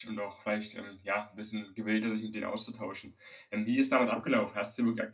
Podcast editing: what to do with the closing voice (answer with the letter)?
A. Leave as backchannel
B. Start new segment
A